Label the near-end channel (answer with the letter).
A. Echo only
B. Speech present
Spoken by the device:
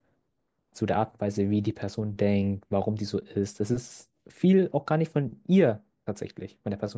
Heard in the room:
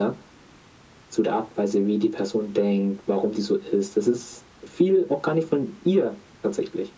A